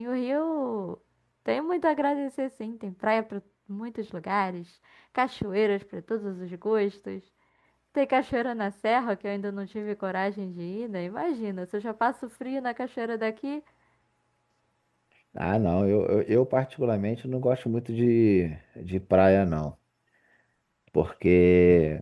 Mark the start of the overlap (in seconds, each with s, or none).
none